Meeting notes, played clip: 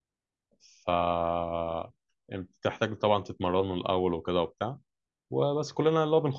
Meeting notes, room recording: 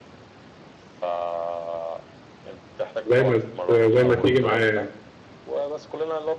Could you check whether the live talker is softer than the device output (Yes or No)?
No